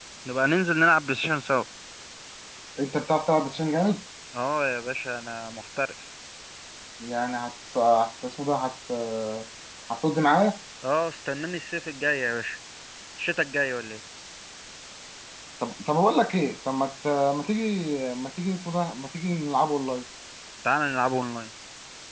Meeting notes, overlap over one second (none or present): none